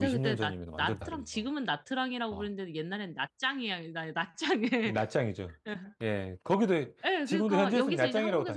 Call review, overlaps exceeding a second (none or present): present